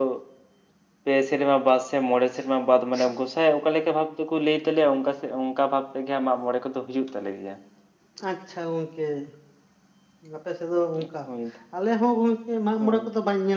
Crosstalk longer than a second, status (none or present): none